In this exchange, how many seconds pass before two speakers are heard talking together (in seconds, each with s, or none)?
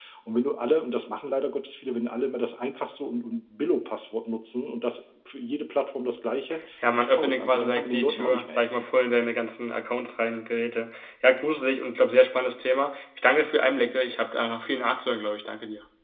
6.8 s